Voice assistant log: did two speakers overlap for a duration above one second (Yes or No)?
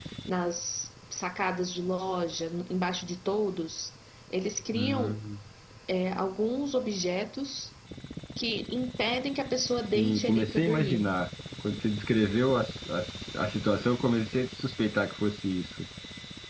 Yes